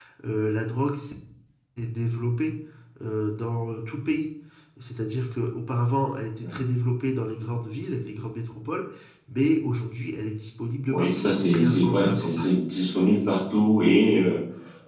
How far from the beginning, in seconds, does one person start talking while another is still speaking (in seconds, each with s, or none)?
10.9 s